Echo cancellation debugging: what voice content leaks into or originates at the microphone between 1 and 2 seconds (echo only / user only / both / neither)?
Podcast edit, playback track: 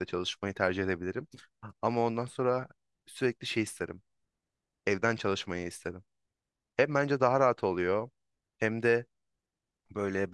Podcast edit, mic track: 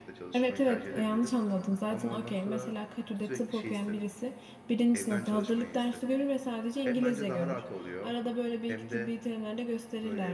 both